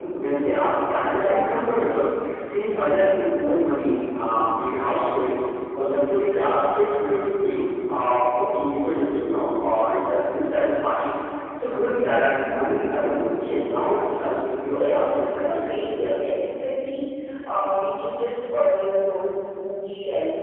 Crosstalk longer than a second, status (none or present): present